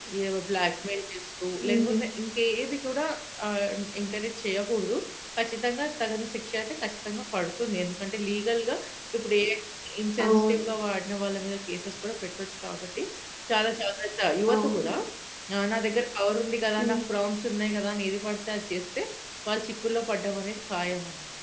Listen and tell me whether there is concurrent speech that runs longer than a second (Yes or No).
No